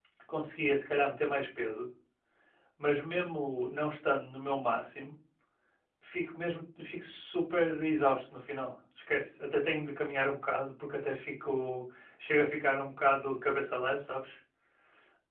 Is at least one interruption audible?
No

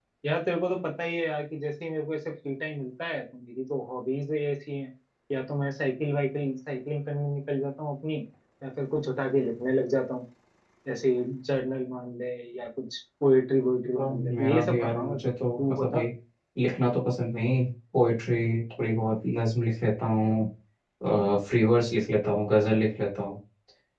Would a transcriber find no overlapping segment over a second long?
No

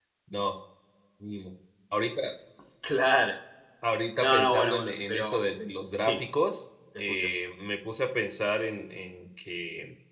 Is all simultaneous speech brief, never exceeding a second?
No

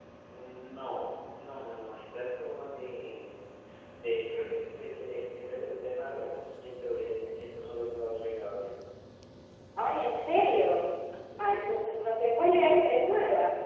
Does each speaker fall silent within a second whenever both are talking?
Yes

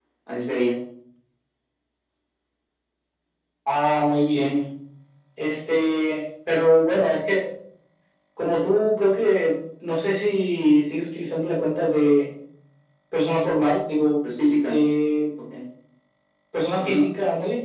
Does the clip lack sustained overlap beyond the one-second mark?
Yes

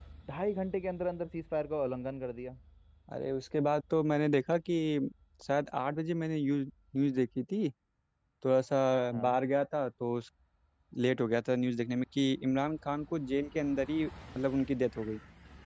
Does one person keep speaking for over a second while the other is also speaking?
No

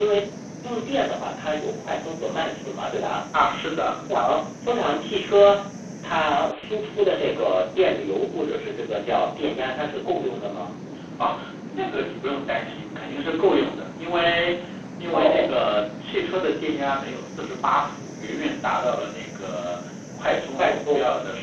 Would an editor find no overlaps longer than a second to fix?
Yes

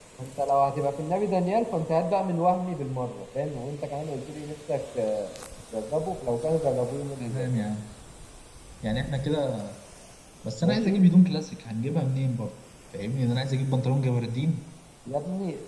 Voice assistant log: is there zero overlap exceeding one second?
Yes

